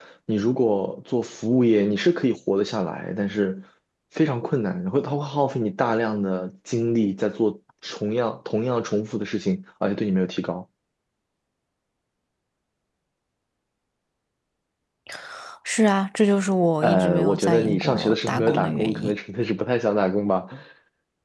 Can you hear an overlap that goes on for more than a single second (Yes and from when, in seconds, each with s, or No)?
Yes, from 16.8 s